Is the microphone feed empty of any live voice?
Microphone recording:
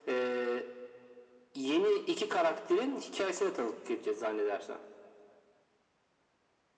Yes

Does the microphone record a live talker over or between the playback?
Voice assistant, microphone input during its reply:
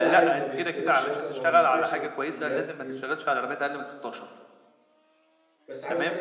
Yes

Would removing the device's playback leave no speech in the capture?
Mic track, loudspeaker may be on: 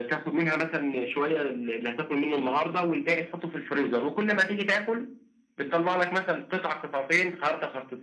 Yes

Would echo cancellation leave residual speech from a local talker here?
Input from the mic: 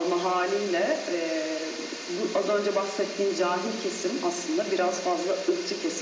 No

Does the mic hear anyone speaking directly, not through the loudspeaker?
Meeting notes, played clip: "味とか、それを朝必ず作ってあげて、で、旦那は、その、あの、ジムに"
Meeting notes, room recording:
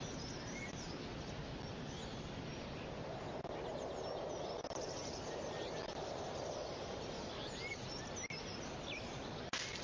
No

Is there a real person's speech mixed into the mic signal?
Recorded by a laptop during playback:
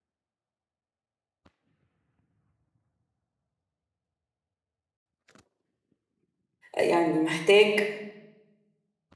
Yes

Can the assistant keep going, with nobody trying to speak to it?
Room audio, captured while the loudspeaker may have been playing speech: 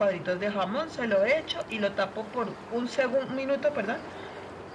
Yes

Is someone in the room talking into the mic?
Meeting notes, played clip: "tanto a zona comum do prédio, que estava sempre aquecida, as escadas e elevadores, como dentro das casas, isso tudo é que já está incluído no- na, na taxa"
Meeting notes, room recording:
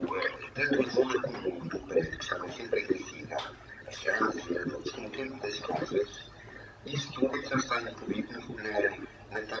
No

